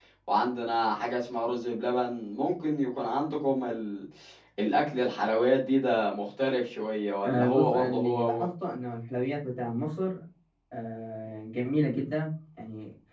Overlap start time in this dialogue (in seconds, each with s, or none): 7.2 s